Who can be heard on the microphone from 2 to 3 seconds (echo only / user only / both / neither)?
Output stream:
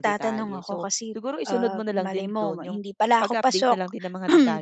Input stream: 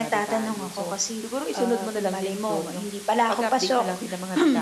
echo only